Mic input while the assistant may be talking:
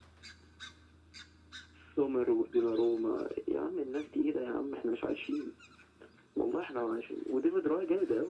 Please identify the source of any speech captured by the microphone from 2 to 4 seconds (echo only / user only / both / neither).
echo only